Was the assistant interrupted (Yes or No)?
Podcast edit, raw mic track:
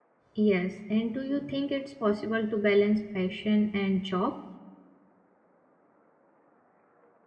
Yes